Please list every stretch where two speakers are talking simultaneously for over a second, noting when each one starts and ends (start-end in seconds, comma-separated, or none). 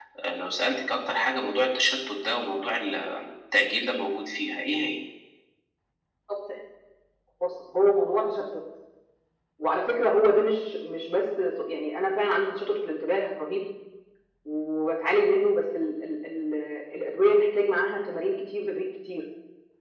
none